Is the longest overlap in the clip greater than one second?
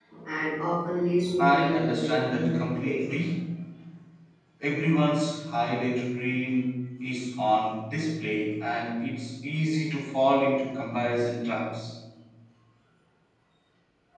Yes, from 1.4 s

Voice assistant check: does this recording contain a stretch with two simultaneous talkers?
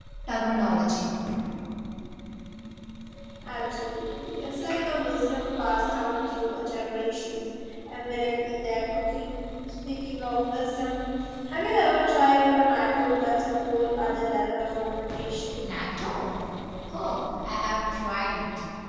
No

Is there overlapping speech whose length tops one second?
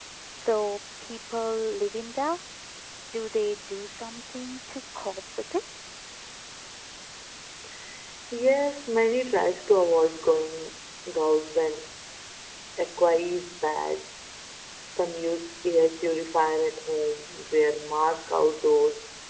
No

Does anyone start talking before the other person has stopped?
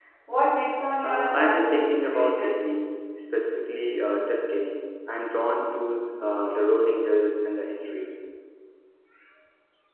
Yes, from 1.0 s

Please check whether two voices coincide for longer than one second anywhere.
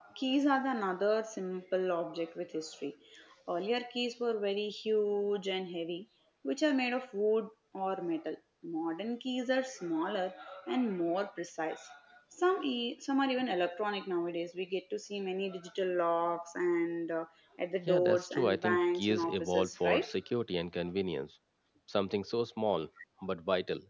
Yes, from 17.8 s

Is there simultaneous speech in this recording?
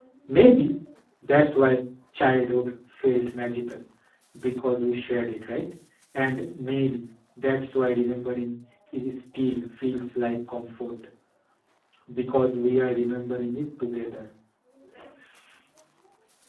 No

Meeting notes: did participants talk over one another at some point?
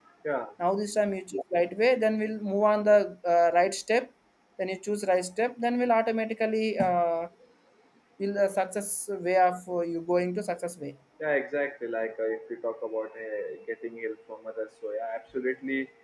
No

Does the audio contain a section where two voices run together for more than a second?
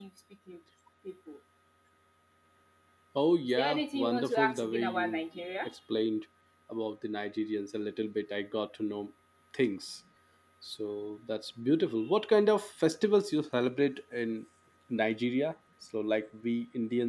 Yes, from 3.4 s

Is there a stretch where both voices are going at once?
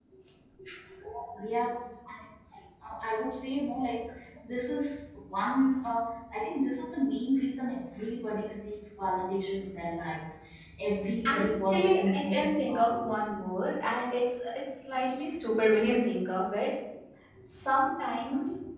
Yes, from 11.3 s

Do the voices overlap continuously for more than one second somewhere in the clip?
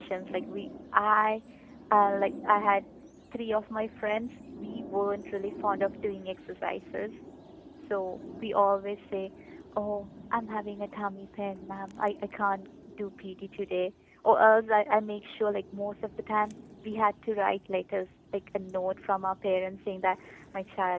No

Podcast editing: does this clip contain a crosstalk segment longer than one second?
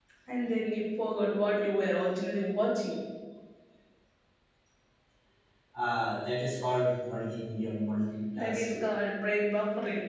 No

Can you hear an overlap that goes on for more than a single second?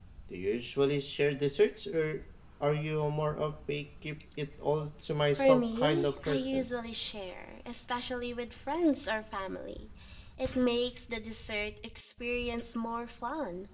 Yes, from 5.4 s

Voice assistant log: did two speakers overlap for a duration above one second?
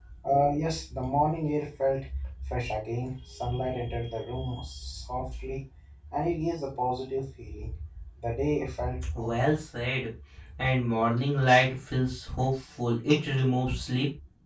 No

